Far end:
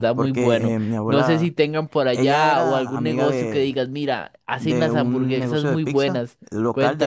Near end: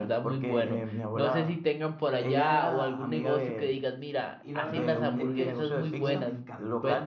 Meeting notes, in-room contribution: present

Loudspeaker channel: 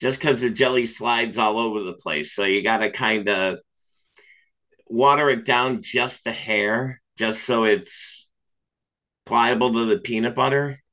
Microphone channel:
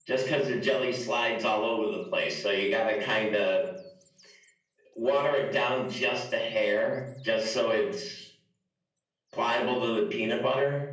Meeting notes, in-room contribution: none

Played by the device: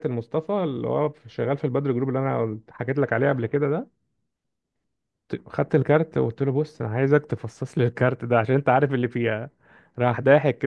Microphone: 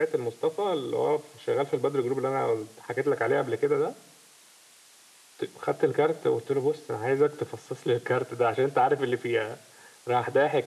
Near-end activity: none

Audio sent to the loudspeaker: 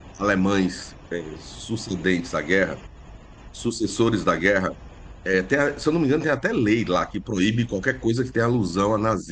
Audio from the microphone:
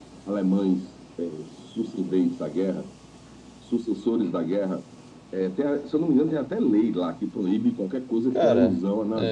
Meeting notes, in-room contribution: present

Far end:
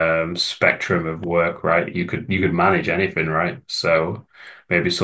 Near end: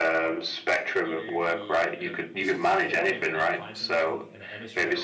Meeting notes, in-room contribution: present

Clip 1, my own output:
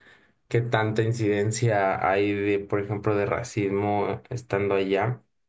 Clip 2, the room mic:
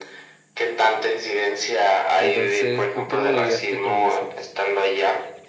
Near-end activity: present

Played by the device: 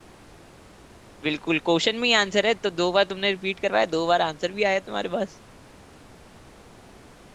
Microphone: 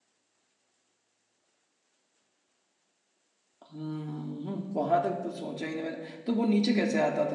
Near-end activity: present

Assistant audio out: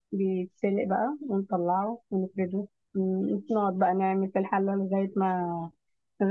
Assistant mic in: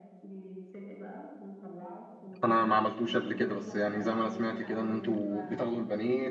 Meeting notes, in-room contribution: present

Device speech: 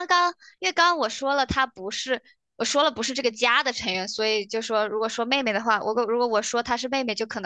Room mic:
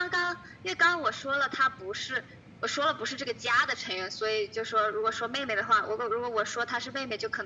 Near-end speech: none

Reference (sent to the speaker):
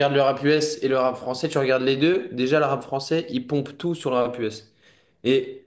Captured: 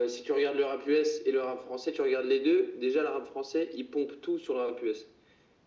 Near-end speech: none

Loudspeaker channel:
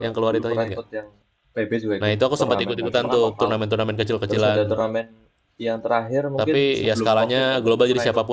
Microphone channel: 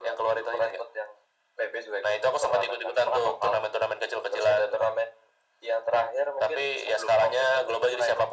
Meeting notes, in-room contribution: none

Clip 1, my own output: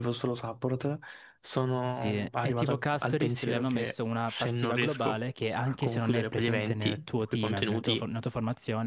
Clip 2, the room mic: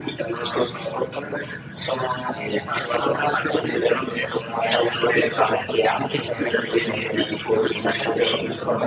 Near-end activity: none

